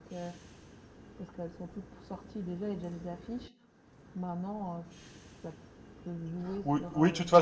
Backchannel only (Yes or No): No